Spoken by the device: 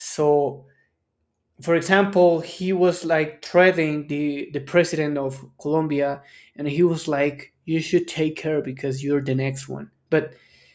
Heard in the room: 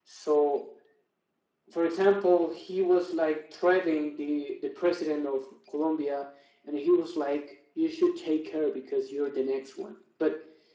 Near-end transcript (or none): none